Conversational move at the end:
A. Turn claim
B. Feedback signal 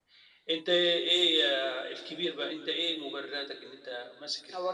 A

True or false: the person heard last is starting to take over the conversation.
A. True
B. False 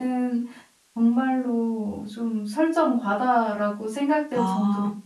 B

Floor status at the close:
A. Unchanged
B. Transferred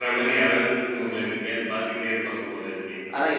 B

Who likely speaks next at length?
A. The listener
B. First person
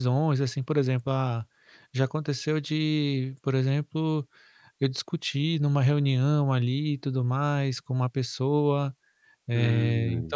B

